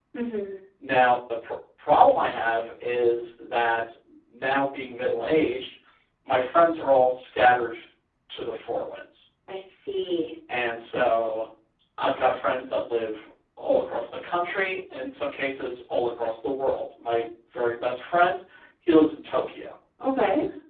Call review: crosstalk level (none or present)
none